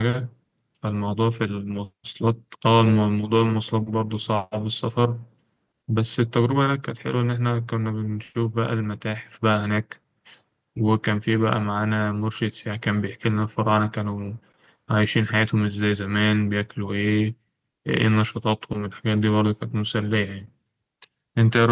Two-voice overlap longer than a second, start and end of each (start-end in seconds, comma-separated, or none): none